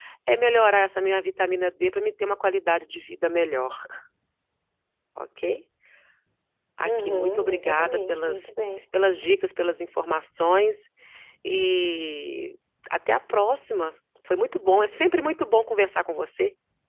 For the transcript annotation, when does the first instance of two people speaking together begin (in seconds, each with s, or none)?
6.8 s